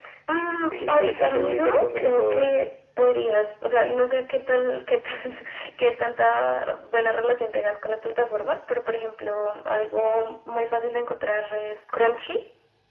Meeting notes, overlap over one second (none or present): present